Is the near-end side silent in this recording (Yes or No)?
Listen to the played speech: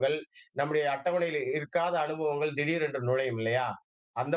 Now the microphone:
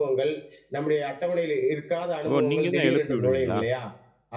No